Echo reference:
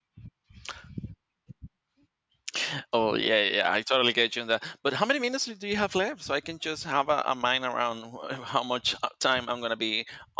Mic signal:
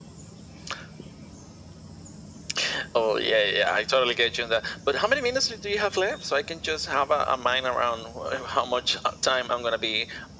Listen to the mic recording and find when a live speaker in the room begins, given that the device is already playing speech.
none

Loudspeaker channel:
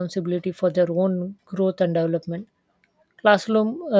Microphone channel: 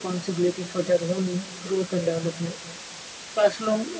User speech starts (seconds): none

